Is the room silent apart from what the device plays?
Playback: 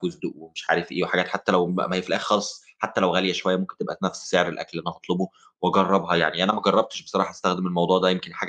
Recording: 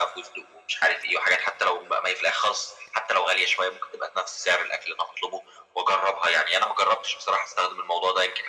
Yes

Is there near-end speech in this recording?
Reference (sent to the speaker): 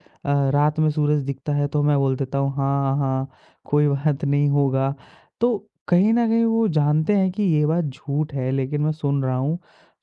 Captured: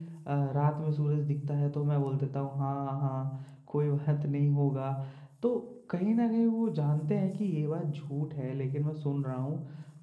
No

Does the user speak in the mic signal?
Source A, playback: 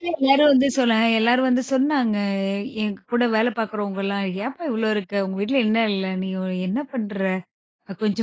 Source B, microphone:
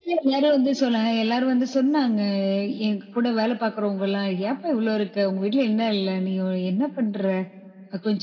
No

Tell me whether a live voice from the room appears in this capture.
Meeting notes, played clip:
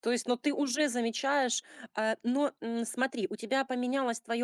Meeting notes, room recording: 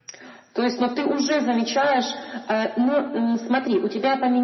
No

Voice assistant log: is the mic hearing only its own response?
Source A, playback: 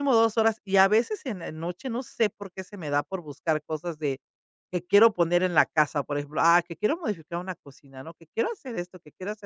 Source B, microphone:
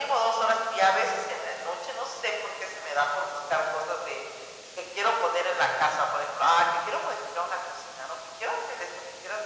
Yes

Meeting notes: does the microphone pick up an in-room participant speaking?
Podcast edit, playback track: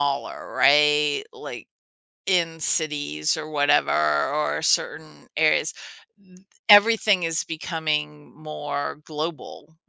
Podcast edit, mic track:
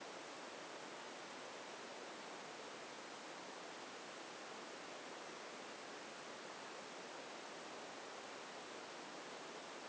No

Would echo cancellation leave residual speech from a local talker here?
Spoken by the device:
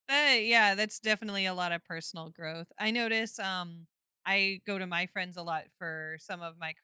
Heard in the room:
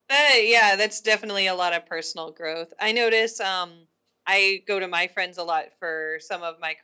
No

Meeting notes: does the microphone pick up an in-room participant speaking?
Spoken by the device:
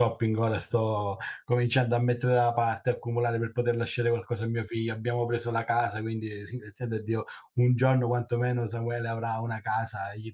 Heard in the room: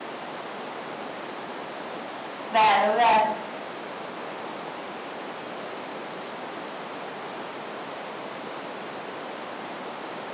Yes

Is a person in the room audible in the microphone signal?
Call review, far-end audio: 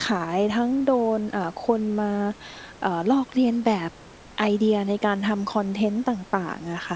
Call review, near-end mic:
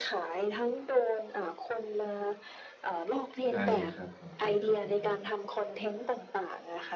Yes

